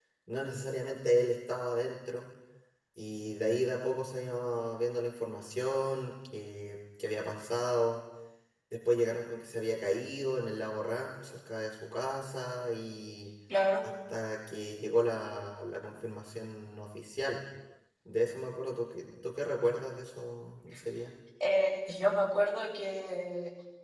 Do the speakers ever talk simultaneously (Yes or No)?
No